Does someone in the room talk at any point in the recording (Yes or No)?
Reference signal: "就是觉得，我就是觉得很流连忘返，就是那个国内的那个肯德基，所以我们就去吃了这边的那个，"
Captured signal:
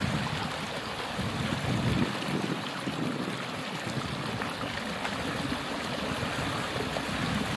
No